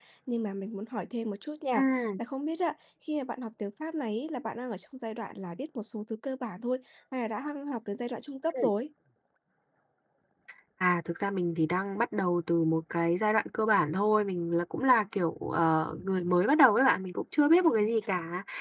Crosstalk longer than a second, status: none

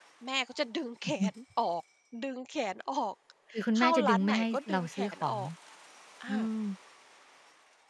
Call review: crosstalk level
present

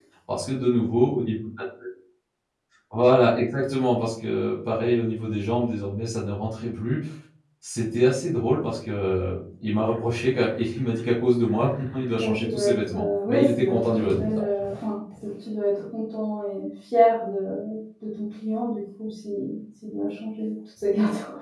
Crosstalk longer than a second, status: present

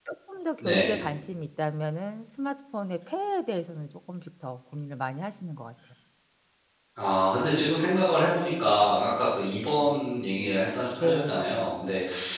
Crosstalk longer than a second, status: none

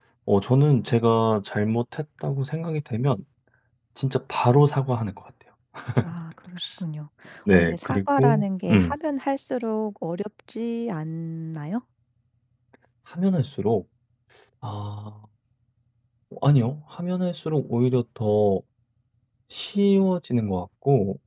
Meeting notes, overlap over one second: present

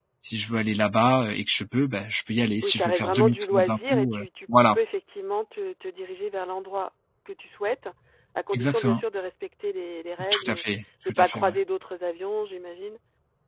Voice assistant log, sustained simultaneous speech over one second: present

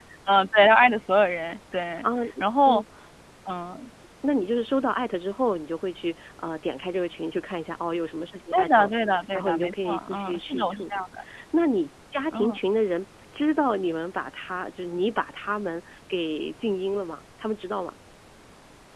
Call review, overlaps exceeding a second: present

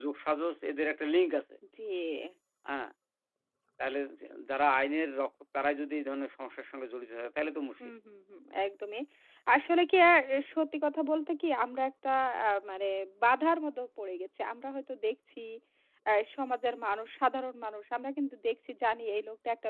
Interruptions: none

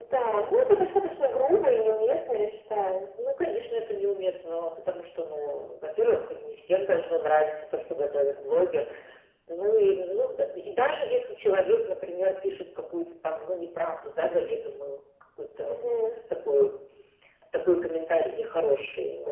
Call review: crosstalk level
none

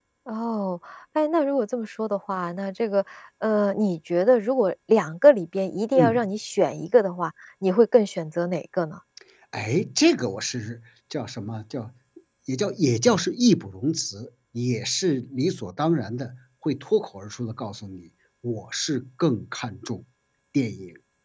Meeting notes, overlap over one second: none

